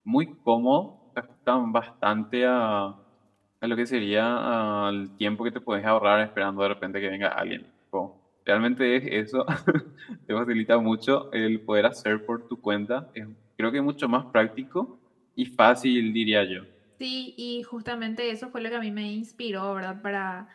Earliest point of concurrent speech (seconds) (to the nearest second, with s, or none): none